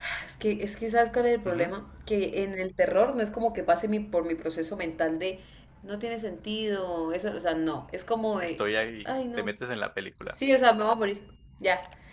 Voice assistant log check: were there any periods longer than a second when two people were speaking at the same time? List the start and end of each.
none

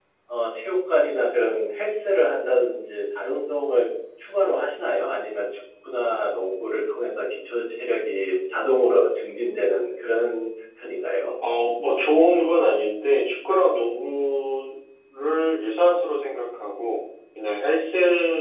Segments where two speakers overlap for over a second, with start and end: none

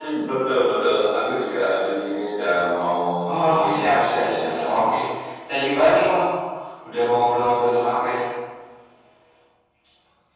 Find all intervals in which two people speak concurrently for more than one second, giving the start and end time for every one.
3.4-4.8

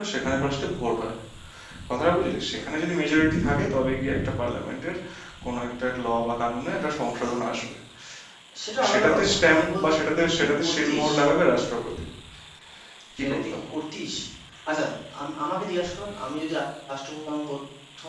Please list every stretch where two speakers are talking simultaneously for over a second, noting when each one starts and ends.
8.9-11.1

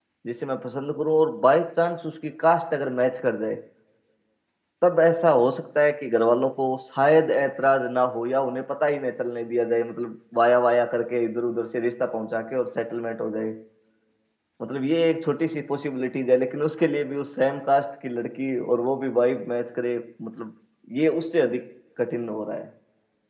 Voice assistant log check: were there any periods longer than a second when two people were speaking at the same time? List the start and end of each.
none

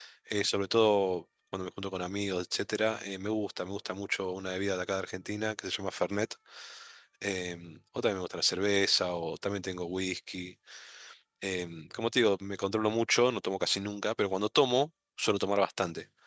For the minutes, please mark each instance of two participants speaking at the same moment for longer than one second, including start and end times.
none

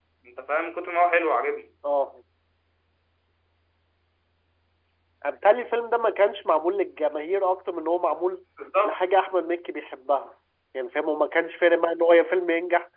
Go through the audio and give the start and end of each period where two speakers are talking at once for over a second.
none

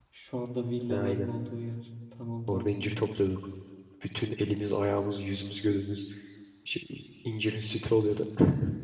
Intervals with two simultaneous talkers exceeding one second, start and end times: none

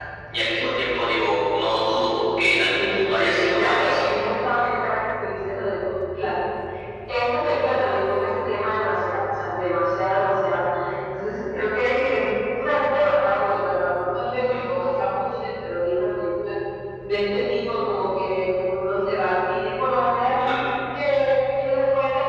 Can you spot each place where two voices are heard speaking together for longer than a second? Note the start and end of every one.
2.1-4.0

